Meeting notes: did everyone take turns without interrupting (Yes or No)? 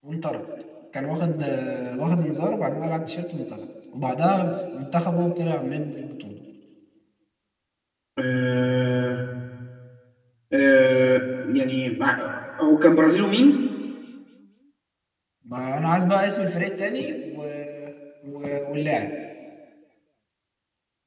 Yes